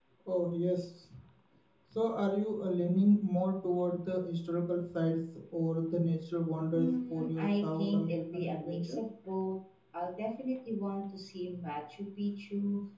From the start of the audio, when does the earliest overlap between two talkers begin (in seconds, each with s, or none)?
6.7 s